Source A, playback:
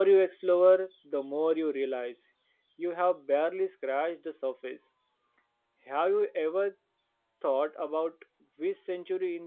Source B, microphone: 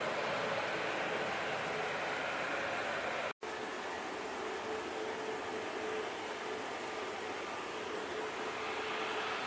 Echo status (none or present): none